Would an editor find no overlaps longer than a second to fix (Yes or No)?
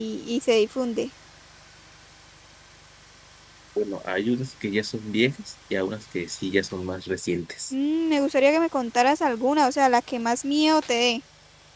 Yes